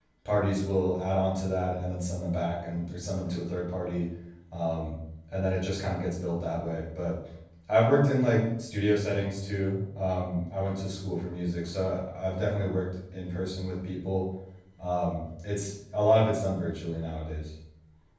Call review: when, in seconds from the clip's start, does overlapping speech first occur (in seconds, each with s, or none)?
none